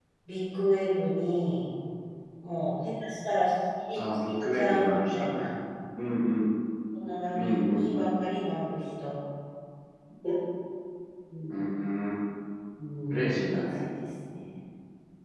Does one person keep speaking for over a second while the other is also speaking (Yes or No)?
Yes